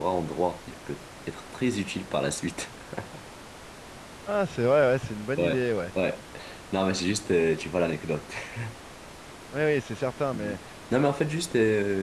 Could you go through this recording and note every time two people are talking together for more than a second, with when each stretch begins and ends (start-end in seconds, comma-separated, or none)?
none